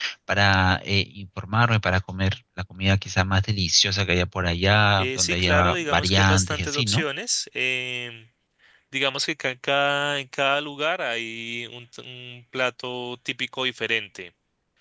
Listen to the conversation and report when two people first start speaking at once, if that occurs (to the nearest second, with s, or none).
5 s